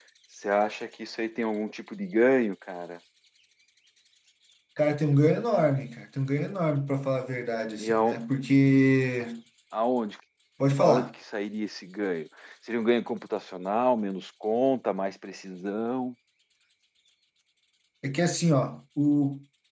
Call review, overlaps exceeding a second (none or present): none